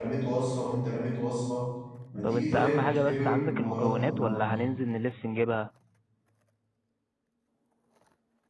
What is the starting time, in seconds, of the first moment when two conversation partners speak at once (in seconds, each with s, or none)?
2.2 s